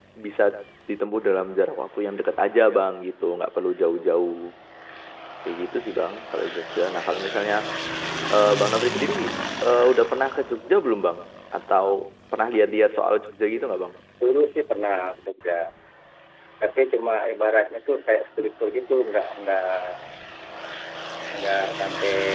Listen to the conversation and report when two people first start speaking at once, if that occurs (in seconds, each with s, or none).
none